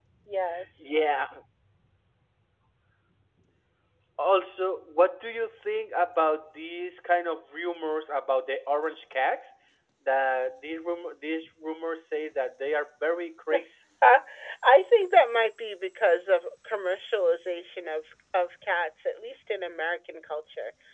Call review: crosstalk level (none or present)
none